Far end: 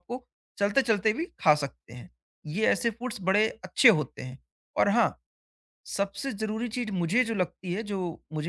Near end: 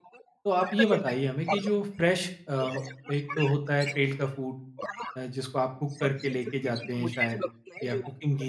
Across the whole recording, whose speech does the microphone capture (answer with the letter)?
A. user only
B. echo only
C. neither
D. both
D